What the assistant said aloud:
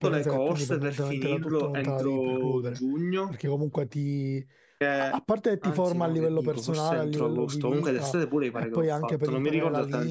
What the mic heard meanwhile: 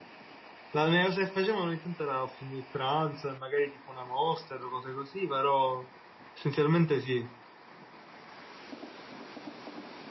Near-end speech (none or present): present